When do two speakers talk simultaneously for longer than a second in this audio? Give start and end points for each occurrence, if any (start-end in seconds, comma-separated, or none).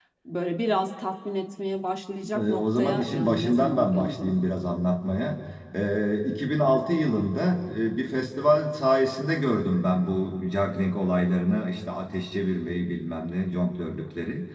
2.4-4.3